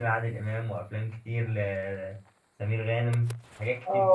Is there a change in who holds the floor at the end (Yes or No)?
Yes